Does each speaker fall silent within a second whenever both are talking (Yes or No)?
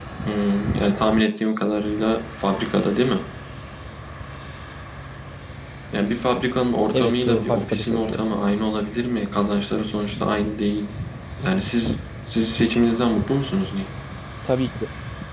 No